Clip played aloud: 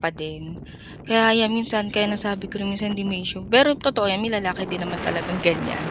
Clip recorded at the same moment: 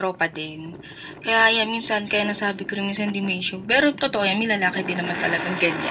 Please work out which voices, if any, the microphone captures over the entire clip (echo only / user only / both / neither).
echo only